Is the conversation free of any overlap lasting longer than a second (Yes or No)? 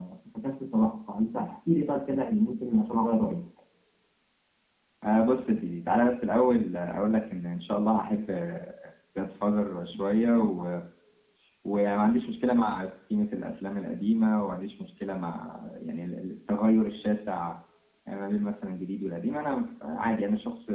Yes